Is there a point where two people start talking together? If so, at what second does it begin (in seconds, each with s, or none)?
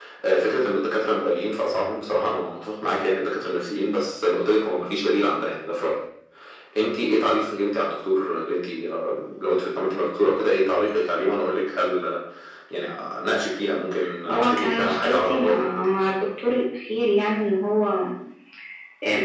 14.3 s